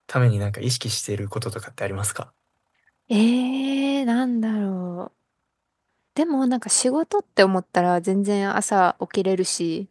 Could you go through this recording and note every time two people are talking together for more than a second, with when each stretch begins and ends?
none

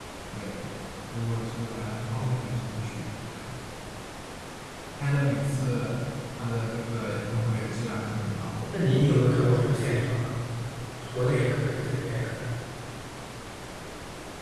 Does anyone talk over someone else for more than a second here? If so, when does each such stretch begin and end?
none

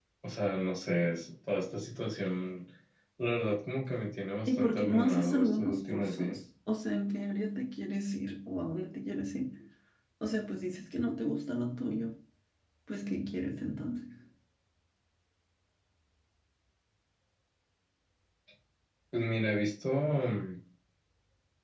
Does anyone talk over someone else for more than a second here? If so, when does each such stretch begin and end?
4.5-6.4

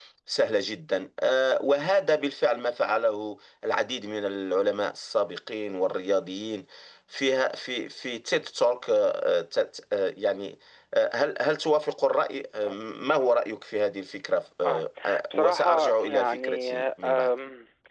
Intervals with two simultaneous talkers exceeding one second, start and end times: 15.3-17.3

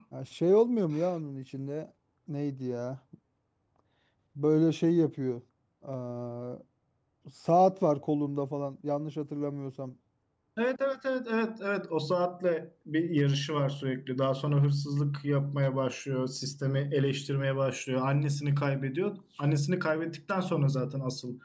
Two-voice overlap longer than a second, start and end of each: none

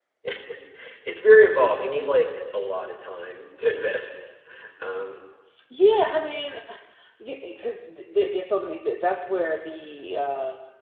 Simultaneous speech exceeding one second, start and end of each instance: none

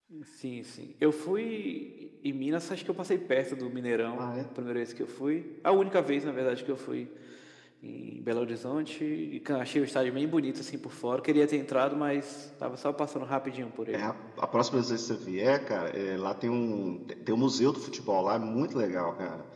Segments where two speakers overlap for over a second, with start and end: none

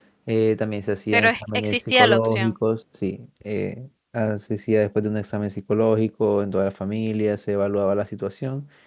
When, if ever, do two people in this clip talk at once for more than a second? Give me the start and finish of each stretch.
1.1-2.5

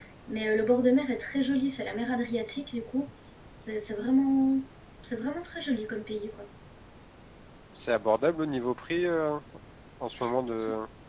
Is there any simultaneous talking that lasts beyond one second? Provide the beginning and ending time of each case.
none

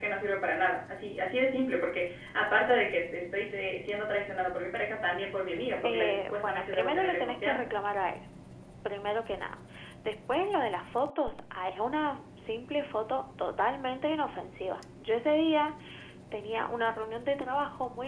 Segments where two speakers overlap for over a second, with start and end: 5.8-7.7

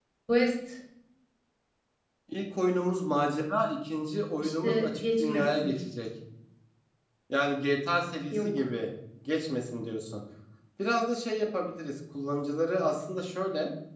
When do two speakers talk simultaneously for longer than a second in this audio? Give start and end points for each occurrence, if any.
4.4-5.7

